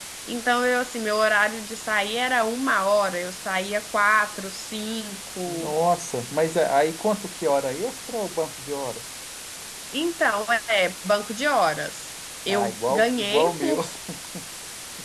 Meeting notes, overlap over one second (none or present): present